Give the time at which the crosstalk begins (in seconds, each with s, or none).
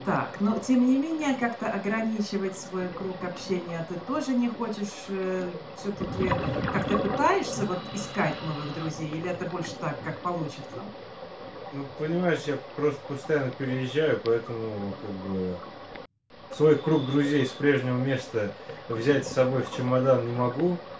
none